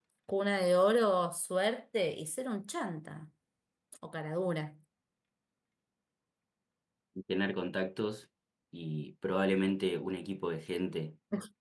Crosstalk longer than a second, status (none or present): none